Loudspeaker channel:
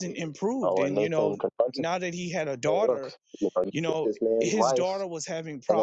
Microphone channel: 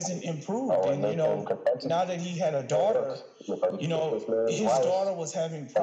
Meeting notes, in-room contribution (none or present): none